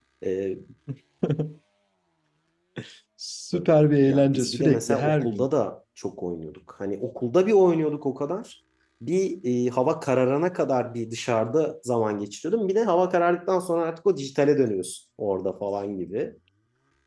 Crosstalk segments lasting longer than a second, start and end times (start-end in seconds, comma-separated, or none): 4.1-5.5